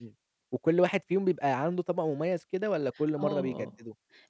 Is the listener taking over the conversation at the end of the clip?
Yes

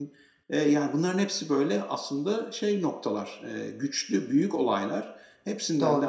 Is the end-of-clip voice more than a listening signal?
No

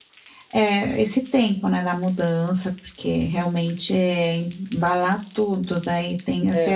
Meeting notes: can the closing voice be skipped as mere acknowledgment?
No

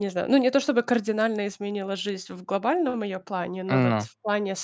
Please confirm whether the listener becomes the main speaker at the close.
No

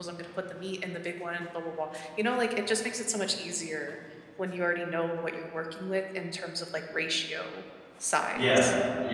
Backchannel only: No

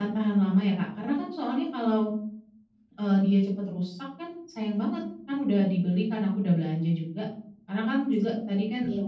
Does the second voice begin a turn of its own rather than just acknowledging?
No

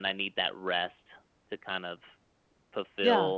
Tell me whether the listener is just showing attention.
Yes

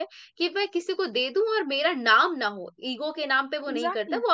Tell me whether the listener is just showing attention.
Yes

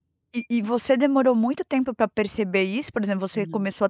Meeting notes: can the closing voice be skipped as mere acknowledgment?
Yes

